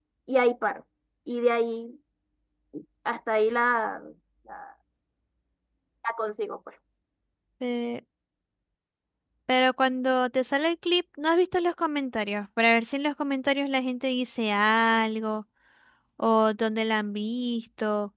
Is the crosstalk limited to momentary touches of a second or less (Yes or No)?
Yes